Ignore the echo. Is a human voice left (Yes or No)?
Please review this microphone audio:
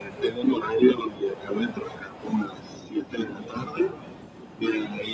No